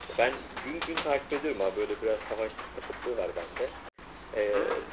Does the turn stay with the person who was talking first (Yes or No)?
Yes